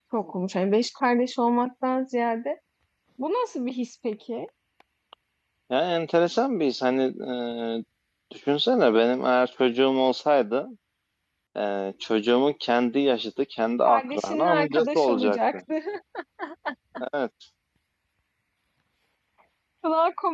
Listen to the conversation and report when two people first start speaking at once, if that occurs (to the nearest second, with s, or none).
14 s